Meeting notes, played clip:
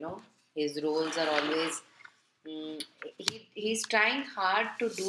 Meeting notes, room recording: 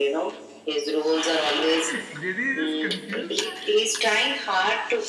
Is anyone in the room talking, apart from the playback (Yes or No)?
Yes